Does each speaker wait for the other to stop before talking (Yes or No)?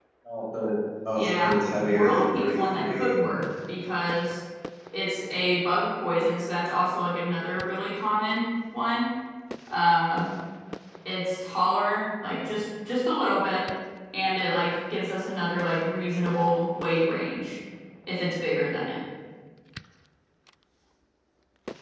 No